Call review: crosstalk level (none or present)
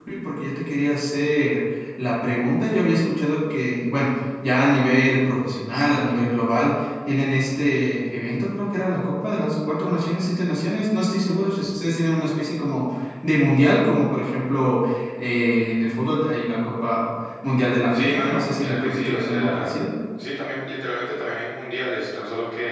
present